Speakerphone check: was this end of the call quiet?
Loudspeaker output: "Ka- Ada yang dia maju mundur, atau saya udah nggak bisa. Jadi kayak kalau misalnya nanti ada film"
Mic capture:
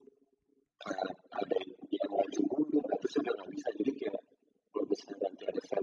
Yes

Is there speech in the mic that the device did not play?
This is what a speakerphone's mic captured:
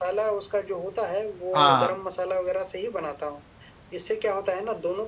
Yes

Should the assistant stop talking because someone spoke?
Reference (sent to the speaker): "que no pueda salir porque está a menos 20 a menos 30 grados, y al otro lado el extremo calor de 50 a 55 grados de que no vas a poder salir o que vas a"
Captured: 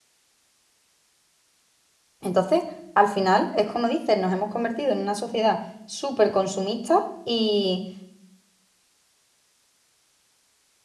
Yes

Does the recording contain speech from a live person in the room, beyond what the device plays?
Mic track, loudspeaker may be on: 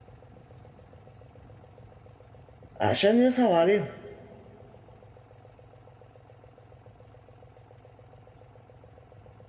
Yes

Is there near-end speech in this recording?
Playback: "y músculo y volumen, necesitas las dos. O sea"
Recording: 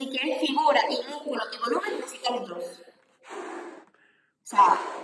No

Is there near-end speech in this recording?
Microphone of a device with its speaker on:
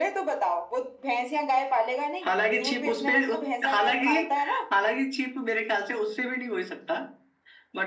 No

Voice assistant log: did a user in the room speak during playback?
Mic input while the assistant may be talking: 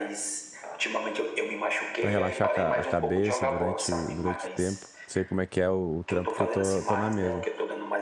Yes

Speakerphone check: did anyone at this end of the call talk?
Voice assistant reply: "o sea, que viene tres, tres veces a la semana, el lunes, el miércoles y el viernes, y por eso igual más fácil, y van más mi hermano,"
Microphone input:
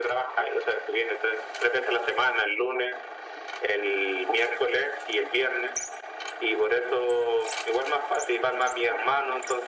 No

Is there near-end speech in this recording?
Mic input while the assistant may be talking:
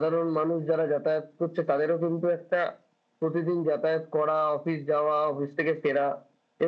No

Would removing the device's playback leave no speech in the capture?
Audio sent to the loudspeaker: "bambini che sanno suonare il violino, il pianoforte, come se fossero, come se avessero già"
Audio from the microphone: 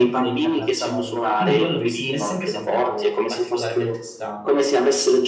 No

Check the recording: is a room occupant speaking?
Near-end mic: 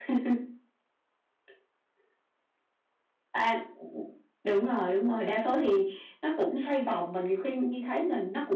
No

